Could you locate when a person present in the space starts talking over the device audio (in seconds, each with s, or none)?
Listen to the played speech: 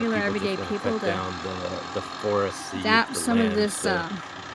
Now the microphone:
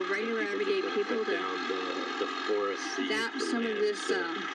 none